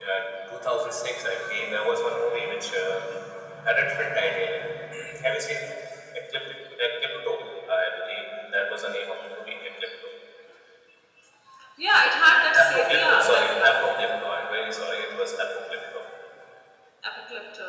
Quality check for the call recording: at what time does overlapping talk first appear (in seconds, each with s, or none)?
12.5 s